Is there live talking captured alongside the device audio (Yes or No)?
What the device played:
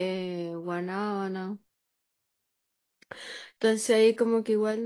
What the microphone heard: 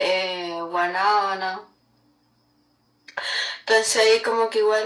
No